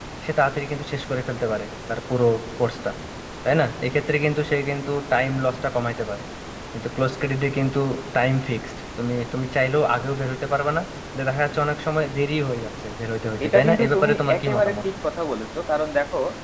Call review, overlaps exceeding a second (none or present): present